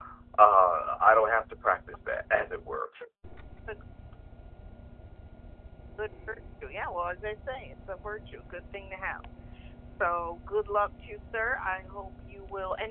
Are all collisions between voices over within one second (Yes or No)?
Yes